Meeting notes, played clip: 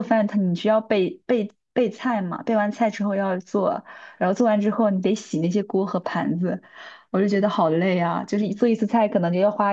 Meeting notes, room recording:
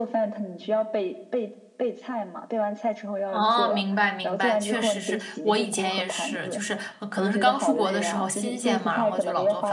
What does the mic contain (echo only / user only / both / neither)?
both